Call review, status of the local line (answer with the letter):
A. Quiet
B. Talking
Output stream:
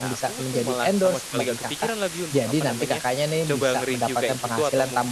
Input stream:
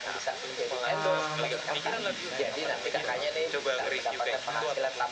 B